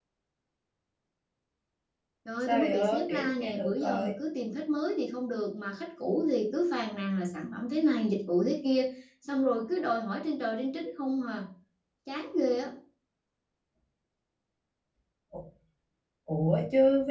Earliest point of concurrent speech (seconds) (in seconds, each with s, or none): 2.4 s